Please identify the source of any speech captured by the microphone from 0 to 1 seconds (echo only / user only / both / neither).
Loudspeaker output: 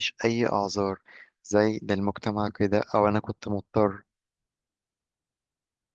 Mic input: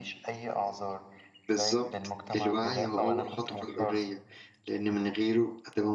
echo only